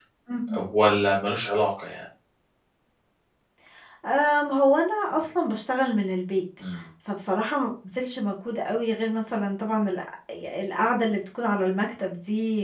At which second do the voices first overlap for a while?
none

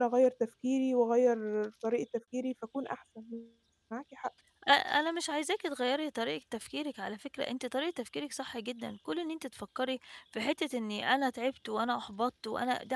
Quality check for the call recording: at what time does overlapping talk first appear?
none

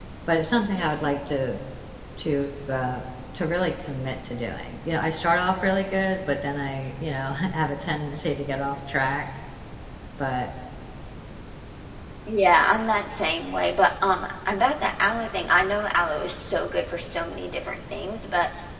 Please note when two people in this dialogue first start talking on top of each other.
none

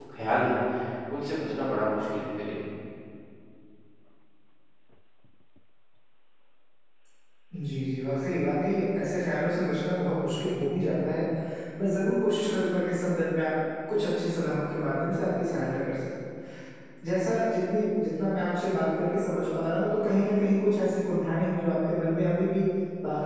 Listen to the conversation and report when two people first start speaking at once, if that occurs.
none

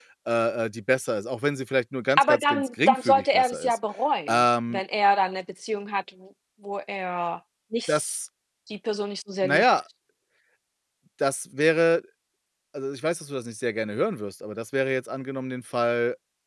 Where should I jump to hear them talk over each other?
2.2 s

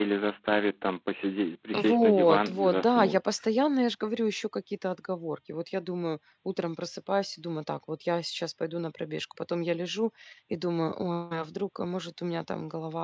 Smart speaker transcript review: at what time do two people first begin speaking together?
1.7 s

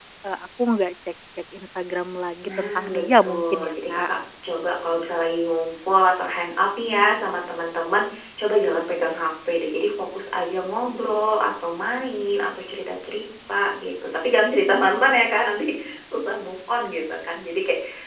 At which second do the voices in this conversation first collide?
2.4 s

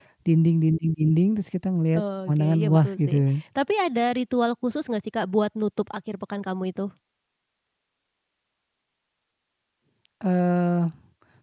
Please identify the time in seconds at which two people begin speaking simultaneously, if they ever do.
1.9 s

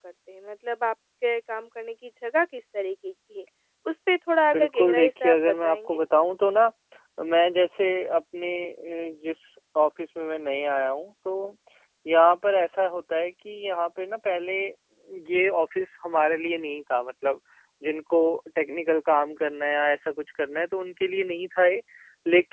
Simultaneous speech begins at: 4.5 s

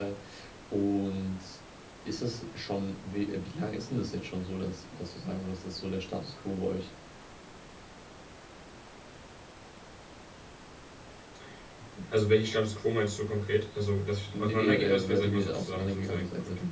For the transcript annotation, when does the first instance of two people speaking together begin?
14.3 s

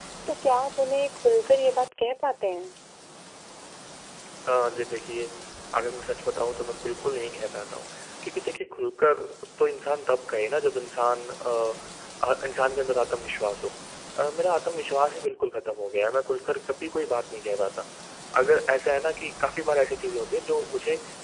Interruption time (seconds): none

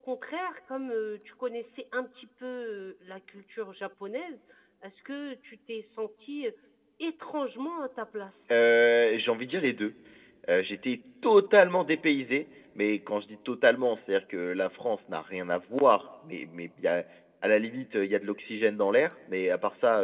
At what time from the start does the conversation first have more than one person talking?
none

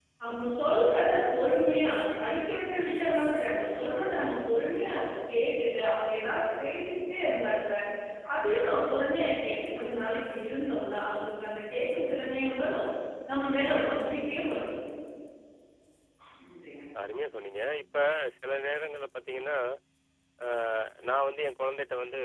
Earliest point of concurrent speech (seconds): none

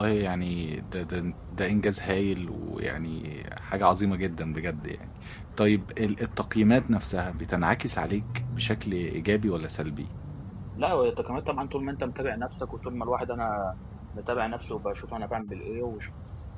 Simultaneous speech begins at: none

